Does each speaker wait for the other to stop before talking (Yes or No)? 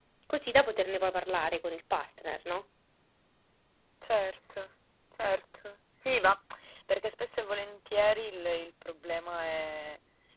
Yes